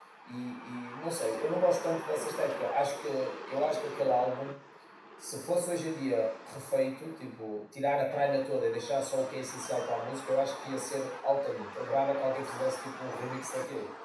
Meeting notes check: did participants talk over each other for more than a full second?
No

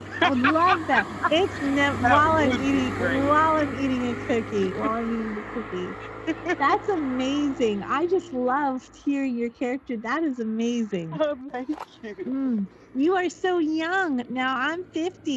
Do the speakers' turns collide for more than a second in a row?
Yes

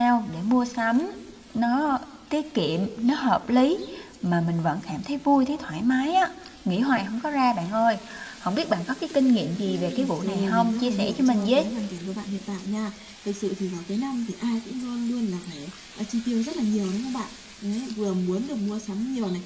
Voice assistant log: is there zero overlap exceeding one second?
No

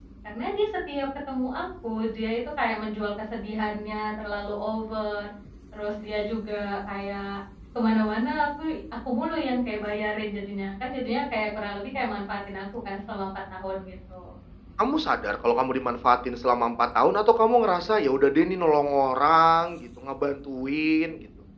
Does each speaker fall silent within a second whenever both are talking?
Yes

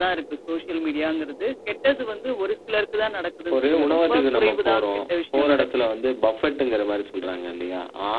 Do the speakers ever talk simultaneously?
Yes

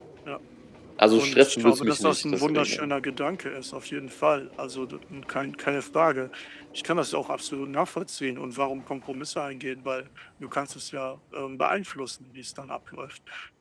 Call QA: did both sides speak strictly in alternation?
No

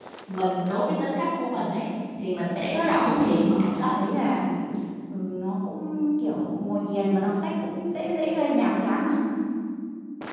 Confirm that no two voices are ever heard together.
No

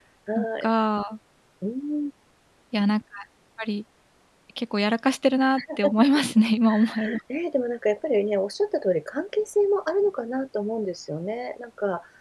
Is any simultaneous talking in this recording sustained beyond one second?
No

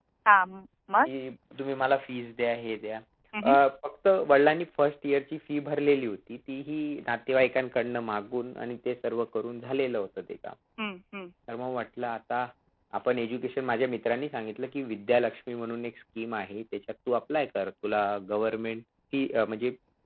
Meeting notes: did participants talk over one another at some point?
No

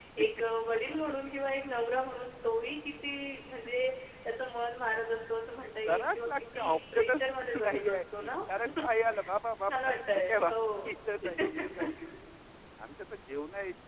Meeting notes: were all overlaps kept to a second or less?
No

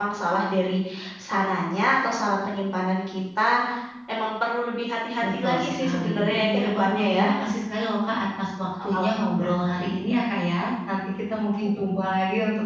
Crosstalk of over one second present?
Yes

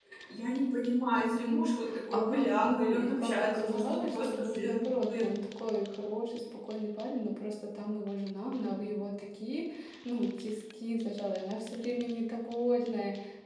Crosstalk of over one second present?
Yes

